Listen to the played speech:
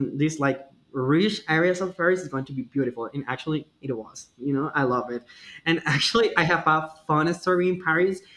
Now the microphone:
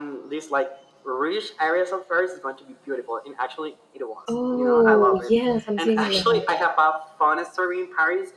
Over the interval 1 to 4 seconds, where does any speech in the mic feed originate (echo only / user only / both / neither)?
echo only